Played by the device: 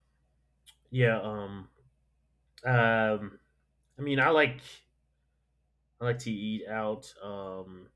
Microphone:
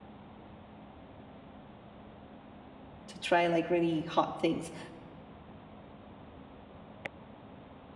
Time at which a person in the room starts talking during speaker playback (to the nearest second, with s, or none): 3 s